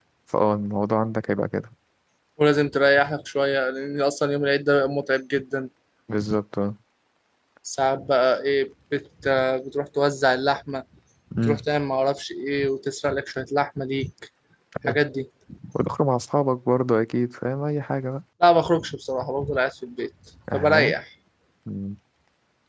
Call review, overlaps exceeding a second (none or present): none